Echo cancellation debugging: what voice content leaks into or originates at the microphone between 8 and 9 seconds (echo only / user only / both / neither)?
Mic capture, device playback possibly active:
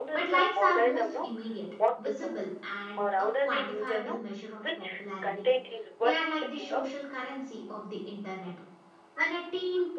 user only